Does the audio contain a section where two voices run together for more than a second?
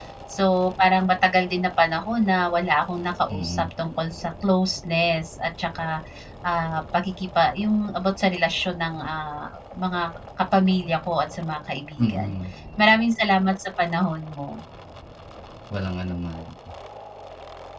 No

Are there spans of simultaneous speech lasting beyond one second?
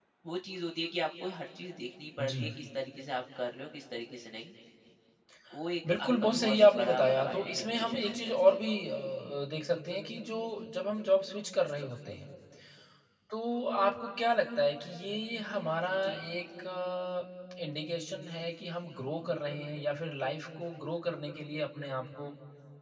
Yes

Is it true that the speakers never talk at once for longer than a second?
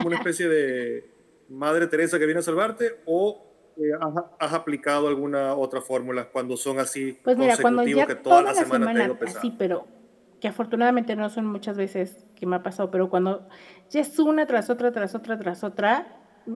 No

